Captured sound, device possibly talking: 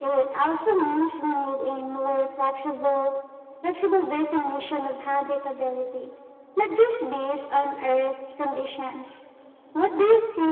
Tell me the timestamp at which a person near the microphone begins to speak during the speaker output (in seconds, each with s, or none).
none